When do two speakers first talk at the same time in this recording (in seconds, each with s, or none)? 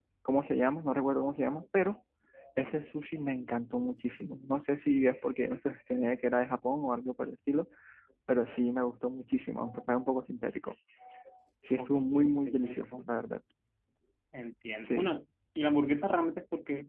11.8 s